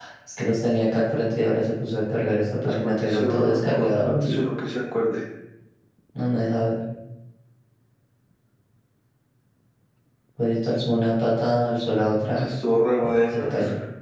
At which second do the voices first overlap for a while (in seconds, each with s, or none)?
2.6 s